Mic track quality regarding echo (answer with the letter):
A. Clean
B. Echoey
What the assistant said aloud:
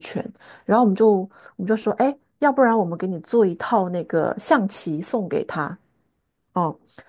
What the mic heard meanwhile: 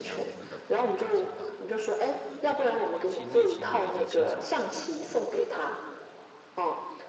B